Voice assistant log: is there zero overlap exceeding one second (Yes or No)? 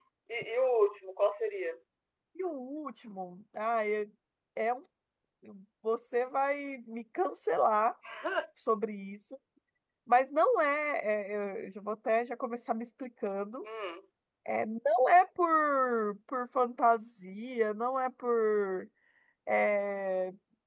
Yes